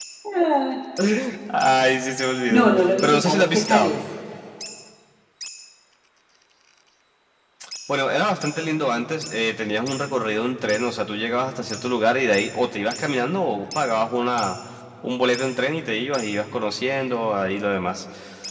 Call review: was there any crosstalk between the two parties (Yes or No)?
Yes